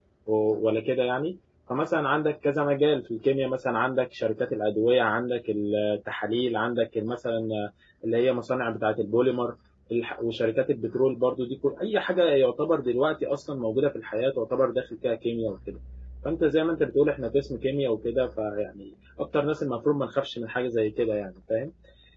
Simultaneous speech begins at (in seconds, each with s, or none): none